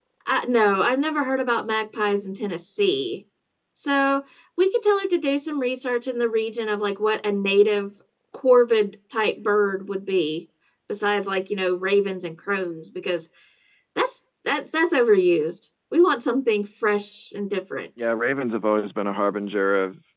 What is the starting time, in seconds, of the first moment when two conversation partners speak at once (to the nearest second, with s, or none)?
none